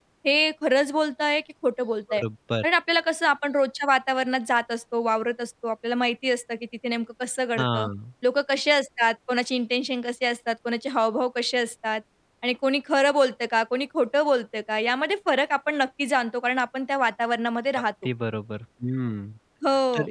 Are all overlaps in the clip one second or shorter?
Yes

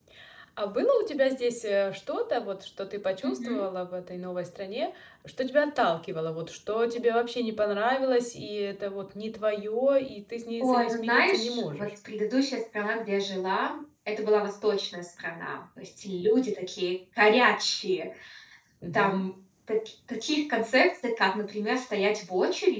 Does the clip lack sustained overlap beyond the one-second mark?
No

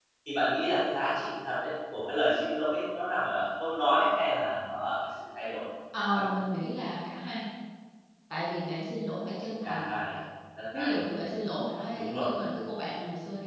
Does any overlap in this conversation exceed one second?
No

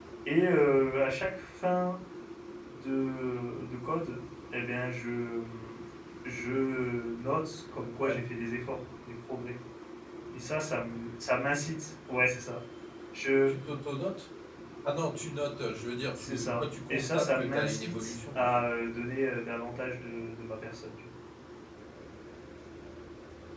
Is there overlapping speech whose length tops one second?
Yes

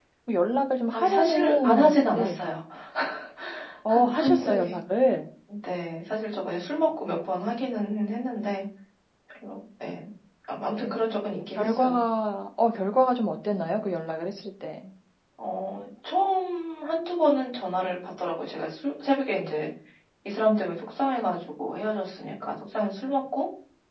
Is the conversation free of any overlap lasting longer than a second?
No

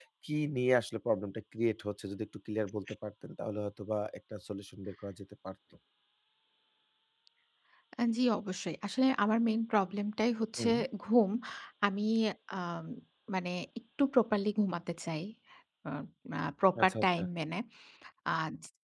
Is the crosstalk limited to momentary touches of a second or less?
Yes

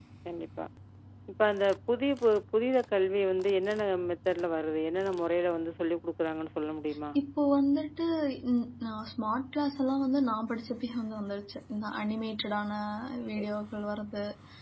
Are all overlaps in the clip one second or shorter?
Yes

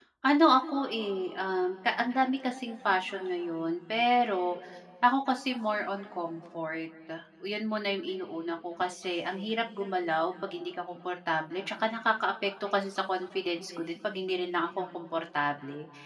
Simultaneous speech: No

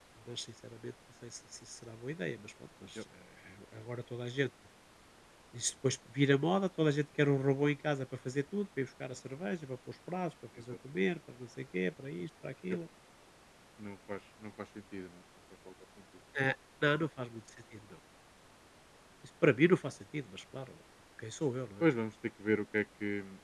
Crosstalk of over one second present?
No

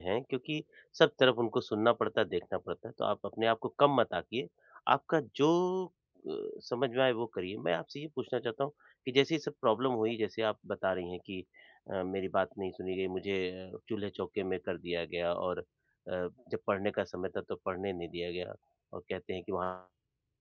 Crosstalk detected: No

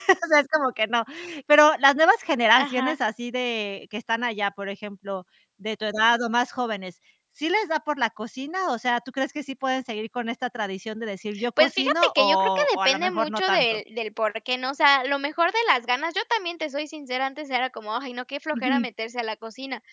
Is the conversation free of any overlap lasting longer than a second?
No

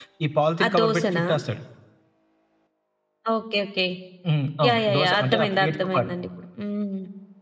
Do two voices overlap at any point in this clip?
Yes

